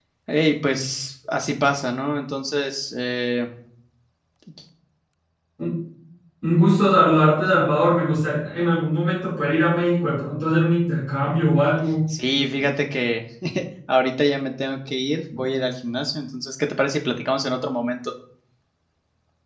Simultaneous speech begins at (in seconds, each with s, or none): none